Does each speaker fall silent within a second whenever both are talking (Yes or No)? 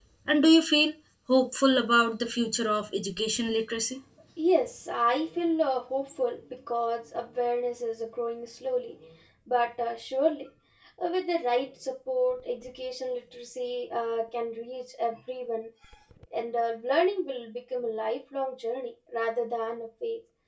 Yes